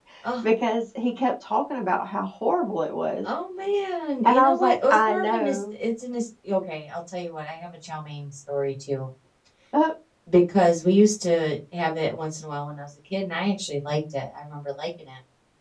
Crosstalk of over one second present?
Yes, from 4.2 s

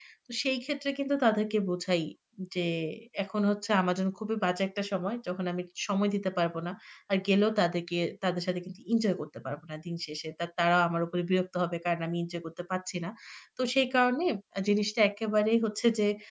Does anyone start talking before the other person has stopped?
No

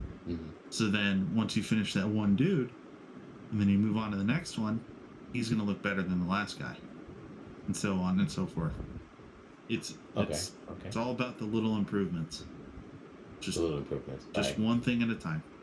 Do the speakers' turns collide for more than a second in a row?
No

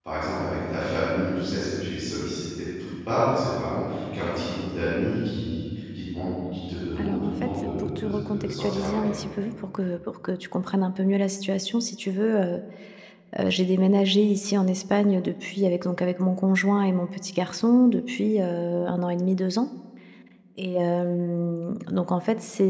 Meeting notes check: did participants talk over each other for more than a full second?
Yes, from 7.0 s

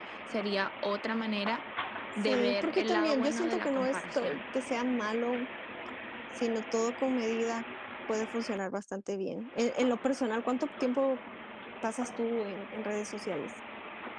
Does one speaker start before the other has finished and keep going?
Yes, from 2.2 s

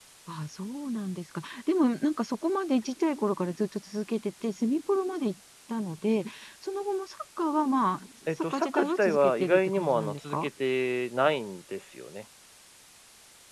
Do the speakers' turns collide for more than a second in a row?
Yes, from 8.3 s

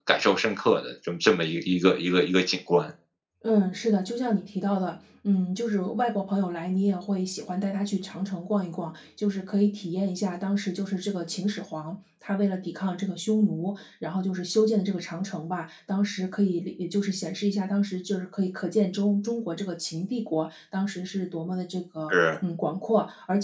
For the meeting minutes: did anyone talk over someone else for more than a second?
No

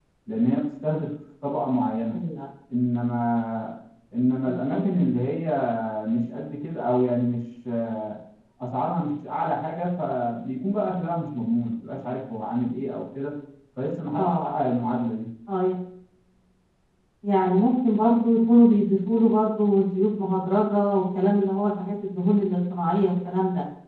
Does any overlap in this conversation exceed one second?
No

